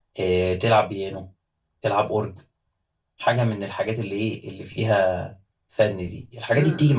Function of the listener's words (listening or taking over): listening